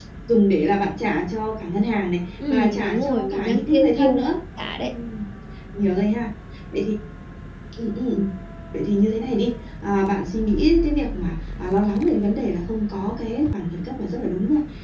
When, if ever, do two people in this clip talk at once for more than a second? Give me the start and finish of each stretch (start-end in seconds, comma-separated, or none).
2.5-4.2